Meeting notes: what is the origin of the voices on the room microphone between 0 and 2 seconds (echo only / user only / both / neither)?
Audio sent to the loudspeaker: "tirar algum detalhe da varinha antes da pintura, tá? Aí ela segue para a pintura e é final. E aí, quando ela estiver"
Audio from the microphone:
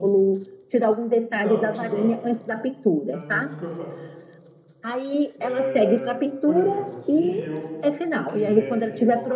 both